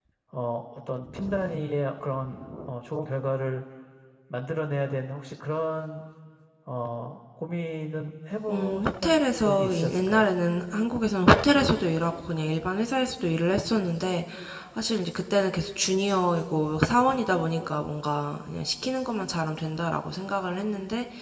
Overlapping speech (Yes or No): Yes